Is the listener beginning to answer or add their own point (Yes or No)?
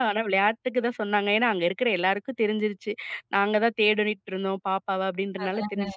No